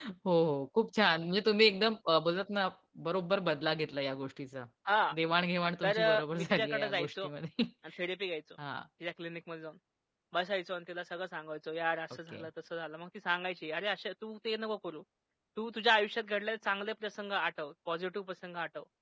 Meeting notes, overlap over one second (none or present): present